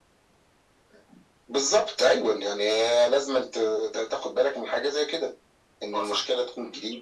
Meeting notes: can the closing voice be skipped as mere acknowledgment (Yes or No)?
Yes